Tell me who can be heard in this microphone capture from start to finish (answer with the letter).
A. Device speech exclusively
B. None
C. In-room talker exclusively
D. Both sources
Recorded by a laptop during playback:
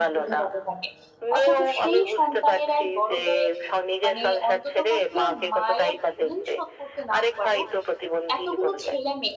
D